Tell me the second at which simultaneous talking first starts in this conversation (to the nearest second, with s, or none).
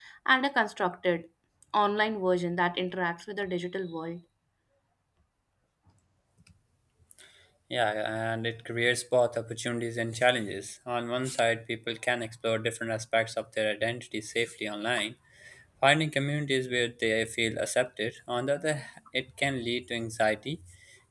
none